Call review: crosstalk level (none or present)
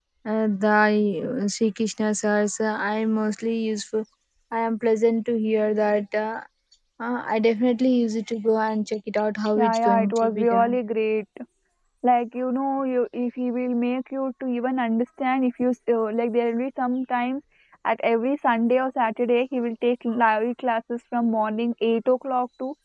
present